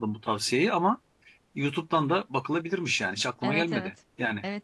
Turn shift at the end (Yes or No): Yes